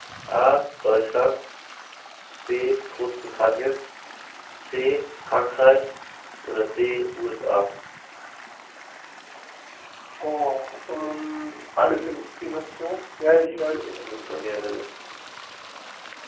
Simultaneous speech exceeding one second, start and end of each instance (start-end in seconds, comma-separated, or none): 13.4-14.7